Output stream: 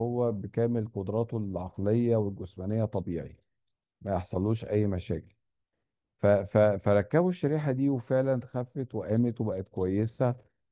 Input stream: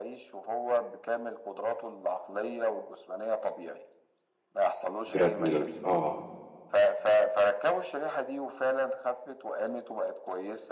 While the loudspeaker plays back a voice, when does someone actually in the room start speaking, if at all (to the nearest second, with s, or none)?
5 s